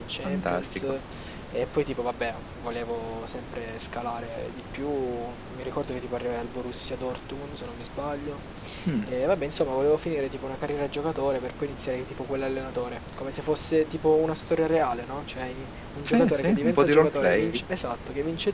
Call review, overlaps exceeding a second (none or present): present